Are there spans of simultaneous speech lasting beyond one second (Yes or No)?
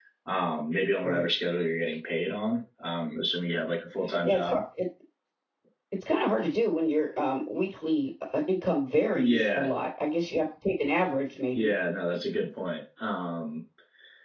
No